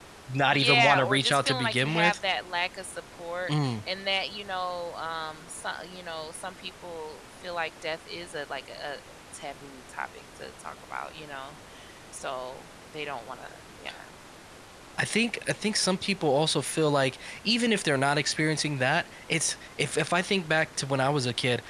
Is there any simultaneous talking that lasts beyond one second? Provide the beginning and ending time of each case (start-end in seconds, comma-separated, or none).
0.5-2.1